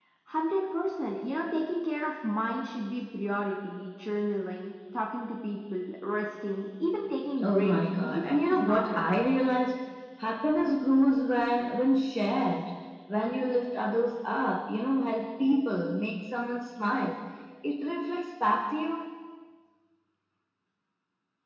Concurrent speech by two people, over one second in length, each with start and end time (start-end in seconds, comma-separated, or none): 7.4-9.1